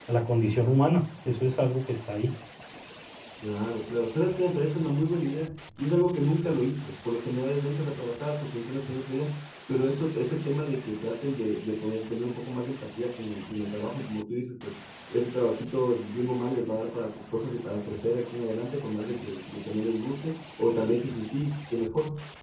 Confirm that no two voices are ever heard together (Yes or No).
Yes